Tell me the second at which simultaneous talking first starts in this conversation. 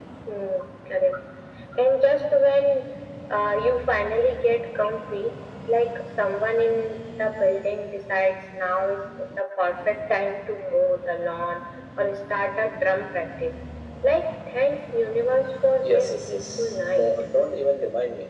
15.8 s

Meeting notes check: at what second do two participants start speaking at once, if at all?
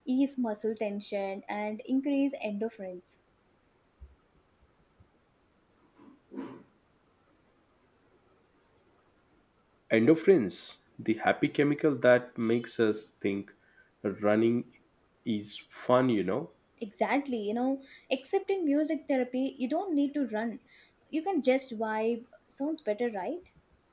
none

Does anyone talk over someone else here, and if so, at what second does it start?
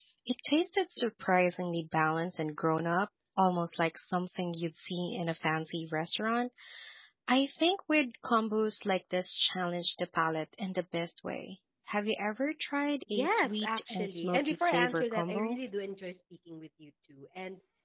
13.2 s

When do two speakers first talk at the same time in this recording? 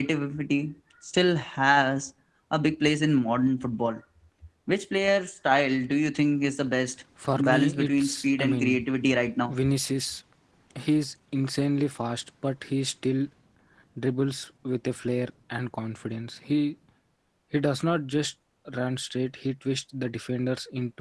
7.2 s

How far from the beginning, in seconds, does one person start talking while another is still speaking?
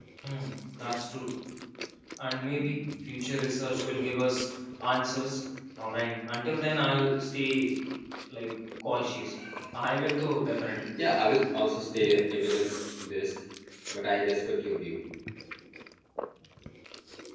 none

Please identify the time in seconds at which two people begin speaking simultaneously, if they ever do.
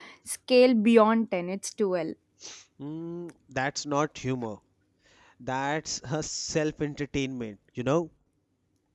none

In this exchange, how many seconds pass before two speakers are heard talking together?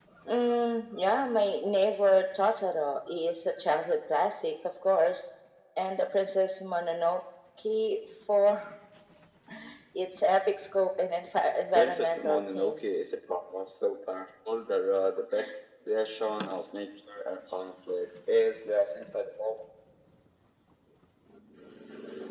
11.7 s

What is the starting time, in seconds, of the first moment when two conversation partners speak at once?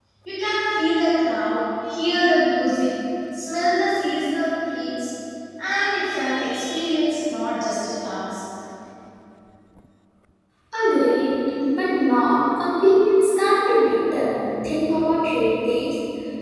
none

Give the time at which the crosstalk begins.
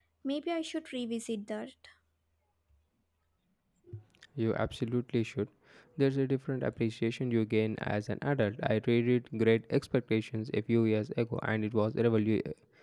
none

